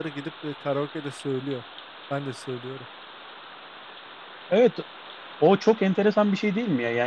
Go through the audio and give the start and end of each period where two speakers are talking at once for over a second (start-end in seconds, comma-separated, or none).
none